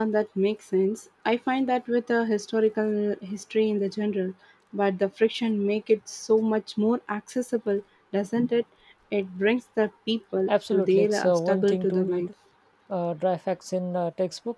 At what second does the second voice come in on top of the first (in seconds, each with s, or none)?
10.5 s